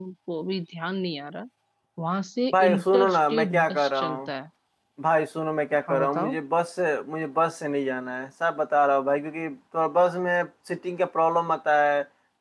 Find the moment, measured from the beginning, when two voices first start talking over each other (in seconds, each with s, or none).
2.5 s